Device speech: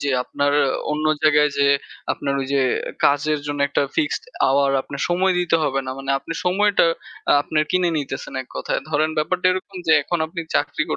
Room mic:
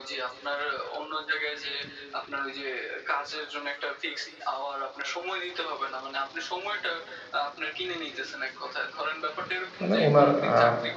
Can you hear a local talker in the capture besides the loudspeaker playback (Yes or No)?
Yes